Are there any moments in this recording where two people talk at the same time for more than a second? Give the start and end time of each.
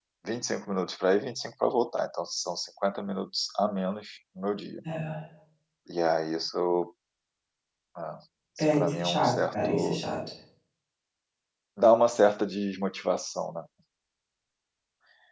8.7-10.0

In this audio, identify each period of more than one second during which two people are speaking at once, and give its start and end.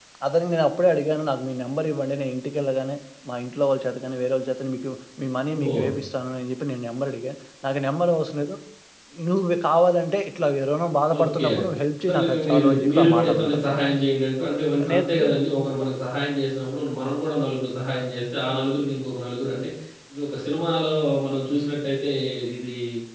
12.0-13.8

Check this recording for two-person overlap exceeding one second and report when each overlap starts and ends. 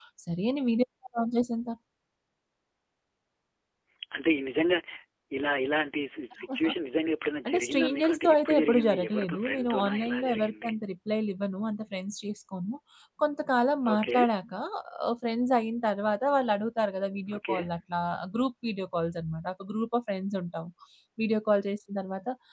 7.5-10.7

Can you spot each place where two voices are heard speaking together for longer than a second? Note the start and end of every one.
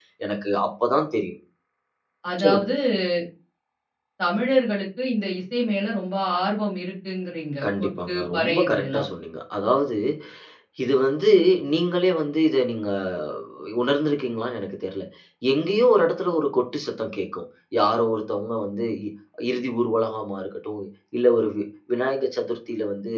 7.7-9.0

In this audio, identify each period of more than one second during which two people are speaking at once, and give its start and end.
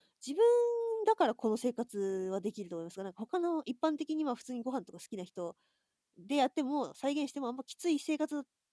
none

